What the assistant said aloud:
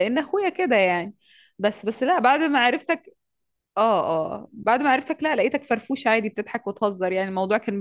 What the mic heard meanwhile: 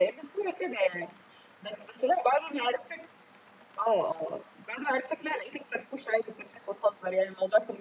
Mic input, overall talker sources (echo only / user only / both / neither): echo only